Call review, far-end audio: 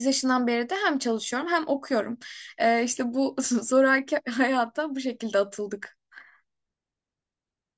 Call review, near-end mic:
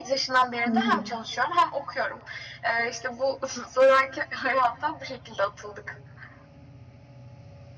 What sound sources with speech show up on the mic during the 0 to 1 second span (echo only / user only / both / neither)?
both